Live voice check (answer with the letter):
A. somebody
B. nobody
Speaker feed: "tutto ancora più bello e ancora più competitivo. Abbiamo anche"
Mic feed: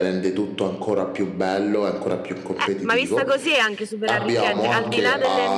A